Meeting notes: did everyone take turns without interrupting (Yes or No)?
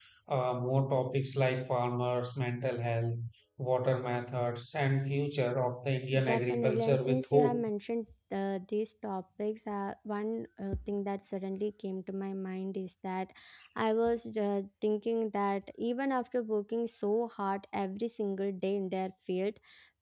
No